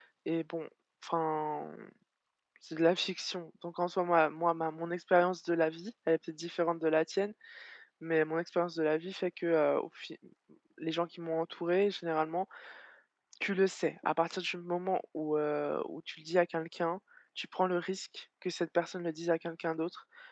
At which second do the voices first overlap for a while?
none

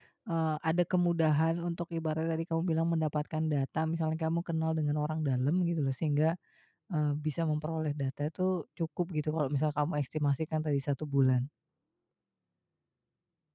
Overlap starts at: none

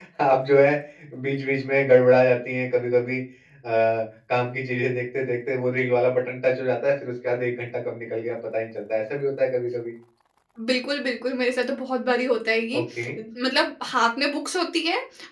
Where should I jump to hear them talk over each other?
none

